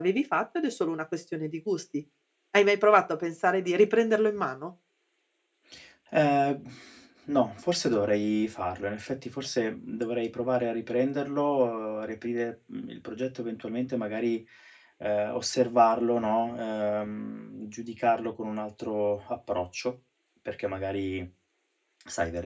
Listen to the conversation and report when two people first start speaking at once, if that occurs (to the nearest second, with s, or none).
none